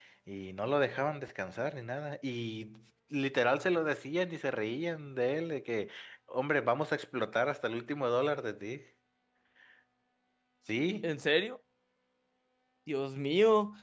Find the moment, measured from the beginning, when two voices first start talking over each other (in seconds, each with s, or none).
none